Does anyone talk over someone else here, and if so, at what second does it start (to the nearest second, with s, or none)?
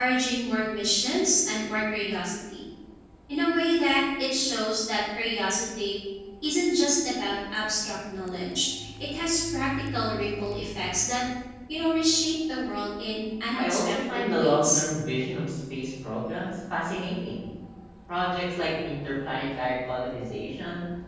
14 s